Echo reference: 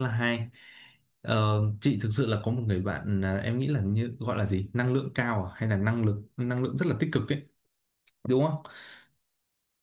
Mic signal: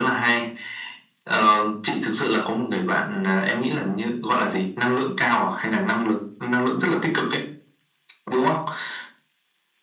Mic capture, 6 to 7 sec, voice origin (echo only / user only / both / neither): echo only